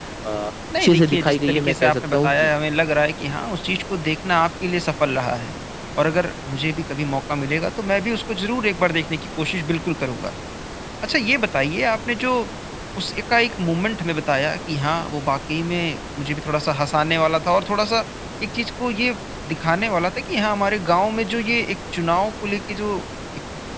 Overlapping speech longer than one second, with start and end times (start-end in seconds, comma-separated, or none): 0.8-2.5